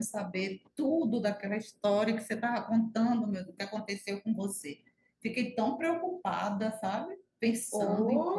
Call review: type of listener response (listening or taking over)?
taking over